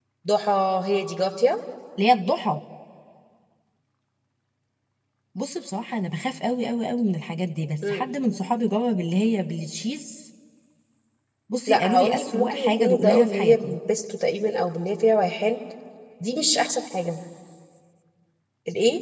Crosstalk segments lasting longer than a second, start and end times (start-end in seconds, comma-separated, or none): 11.7-13.8